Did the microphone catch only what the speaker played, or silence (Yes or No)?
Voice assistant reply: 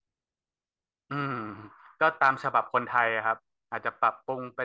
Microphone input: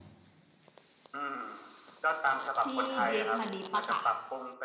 No